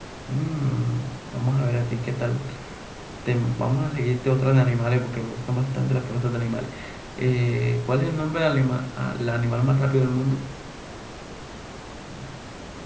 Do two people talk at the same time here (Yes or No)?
No